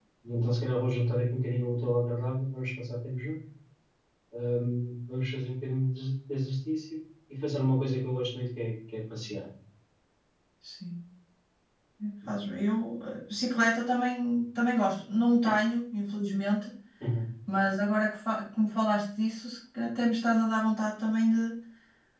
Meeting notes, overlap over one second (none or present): none